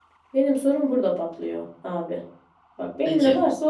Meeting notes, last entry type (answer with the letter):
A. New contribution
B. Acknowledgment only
B